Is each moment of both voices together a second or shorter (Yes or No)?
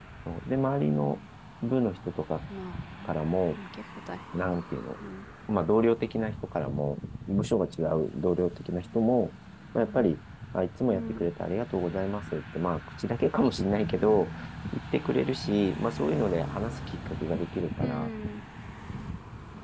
Yes